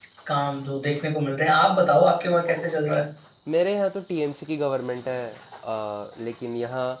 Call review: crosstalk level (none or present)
none